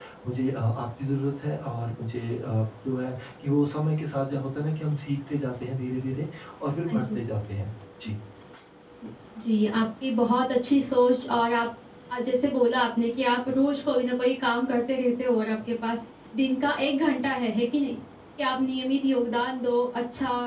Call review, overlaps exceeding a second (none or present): none